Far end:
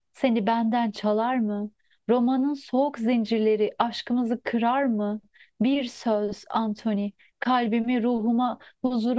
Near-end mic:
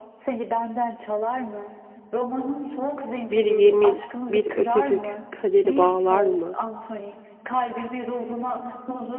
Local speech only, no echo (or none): Bir yemin, bir öpücük kaderi bağlar mı?